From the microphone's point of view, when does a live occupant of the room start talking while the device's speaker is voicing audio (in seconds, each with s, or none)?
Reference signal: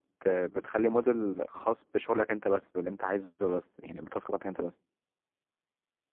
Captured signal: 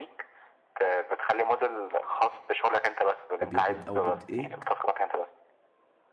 3.4 s